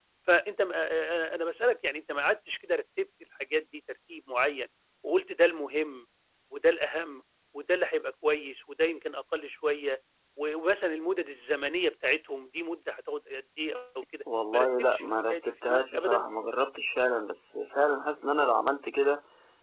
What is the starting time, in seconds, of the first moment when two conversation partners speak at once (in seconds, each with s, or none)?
14.5 s